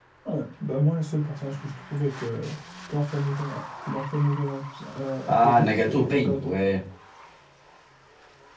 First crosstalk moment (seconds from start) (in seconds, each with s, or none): 5.3 s